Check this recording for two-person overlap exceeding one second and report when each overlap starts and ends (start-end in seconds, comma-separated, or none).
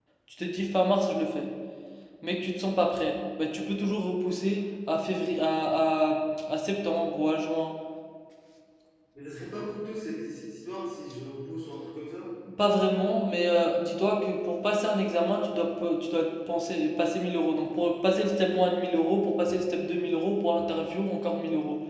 none